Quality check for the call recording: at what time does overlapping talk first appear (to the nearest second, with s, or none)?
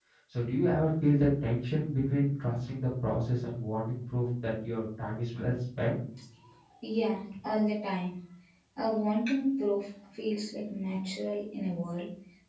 none